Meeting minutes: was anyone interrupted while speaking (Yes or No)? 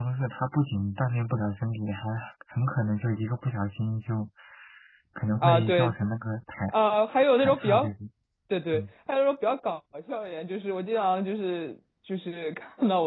Yes